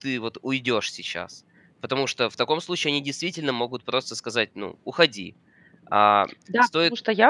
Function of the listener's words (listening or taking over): taking over